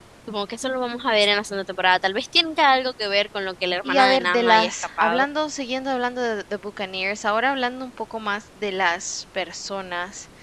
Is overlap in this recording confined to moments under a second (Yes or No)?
No